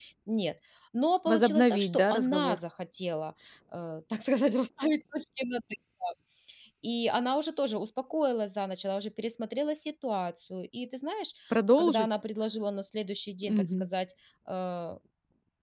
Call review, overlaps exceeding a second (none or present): present